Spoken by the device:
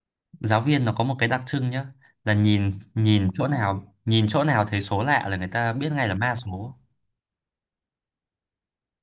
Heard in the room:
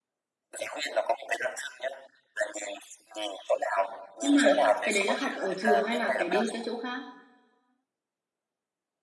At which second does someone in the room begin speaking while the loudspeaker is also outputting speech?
4.2 s

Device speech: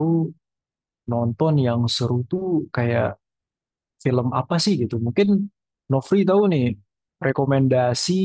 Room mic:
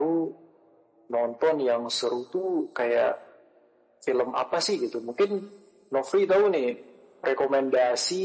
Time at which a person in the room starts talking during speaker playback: none

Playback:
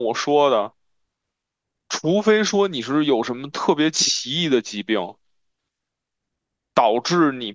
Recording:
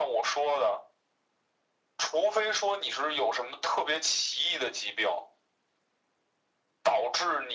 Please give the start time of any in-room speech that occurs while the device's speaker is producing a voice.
none

